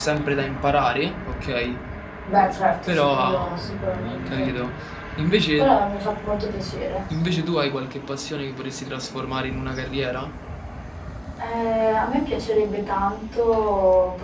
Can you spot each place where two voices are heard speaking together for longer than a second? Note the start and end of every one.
2.4-3.7

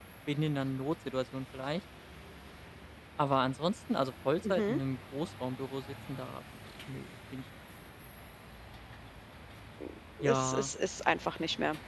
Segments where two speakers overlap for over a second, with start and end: none

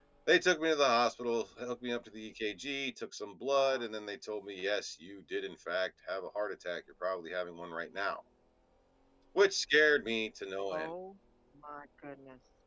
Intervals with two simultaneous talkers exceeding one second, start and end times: none

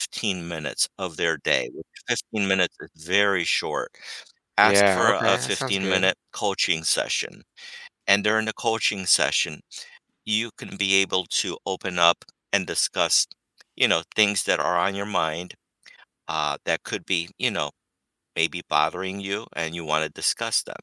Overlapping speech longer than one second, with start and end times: 4.6-6.1

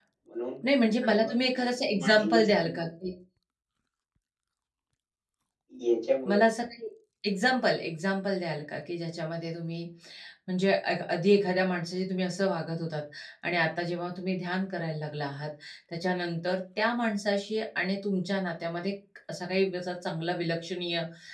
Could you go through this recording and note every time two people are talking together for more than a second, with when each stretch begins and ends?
0.9-2.9

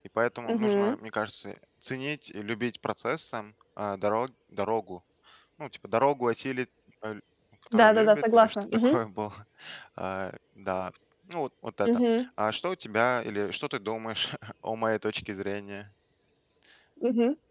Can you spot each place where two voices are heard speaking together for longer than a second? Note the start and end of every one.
7.7-9.0

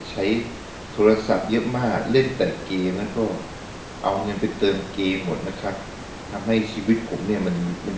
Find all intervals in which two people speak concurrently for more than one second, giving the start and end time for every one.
none

